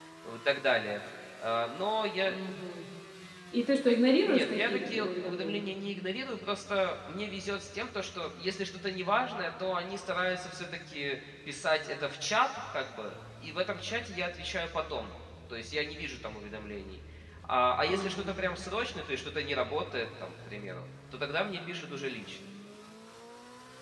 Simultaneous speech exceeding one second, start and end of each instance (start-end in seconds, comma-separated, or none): 4.2-5.7